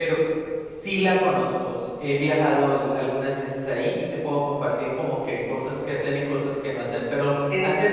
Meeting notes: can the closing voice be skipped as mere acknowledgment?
Yes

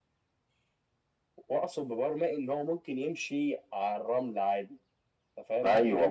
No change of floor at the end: No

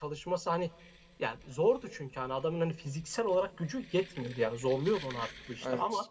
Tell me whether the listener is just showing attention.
Yes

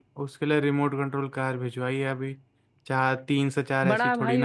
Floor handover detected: Yes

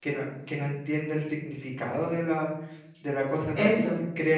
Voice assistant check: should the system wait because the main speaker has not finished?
Yes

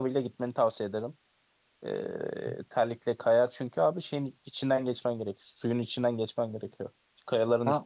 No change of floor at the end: Yes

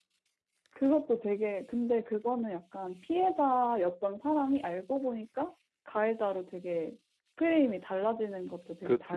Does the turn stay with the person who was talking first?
No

